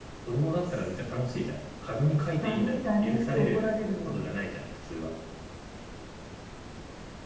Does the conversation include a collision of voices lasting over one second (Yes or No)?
Yes